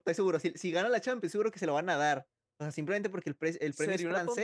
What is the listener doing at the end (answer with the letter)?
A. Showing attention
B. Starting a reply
B